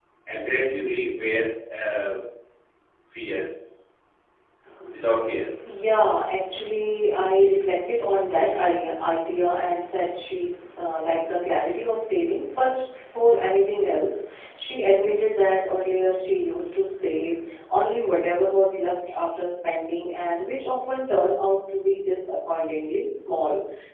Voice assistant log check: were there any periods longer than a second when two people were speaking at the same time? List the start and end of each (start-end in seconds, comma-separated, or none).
none